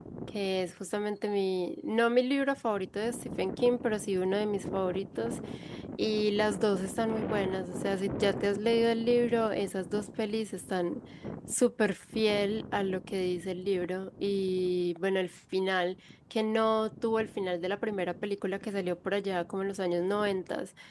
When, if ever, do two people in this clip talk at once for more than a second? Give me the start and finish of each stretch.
none

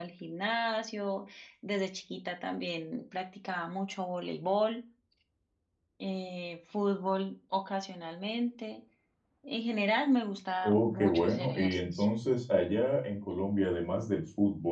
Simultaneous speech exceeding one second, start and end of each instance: 10.6-12.1

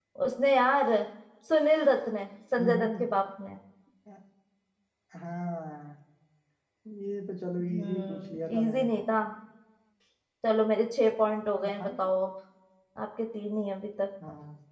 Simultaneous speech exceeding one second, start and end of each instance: 7.6-8.9

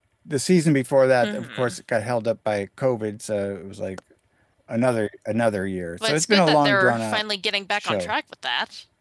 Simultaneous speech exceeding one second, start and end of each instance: 6.0-7.2

